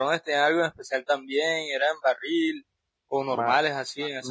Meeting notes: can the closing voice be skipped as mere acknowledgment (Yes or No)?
No